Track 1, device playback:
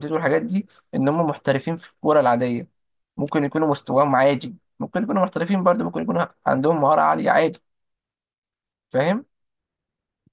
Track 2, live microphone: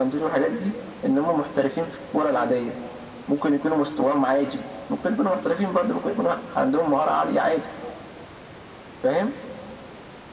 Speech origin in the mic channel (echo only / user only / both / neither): echo only